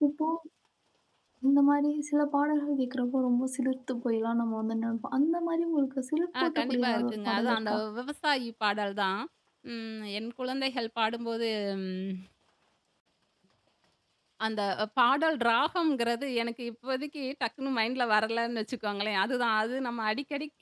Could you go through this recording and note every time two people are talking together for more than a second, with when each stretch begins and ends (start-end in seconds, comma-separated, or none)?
6.4-7.8